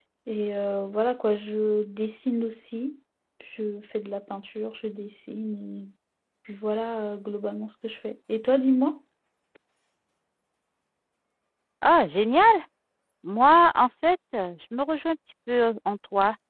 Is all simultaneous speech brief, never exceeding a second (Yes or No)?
Yes